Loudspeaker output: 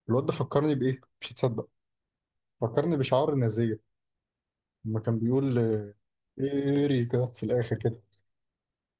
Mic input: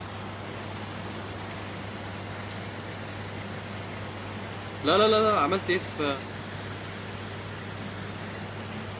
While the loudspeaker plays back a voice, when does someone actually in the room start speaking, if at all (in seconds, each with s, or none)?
4.8 s